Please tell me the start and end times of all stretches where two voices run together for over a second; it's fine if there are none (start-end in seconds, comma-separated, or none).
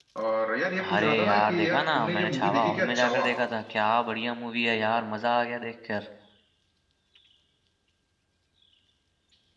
0.9-3.3